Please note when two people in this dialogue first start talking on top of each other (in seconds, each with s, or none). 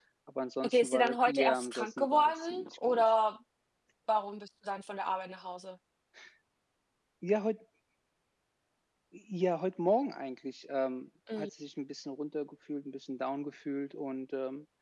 0.6 s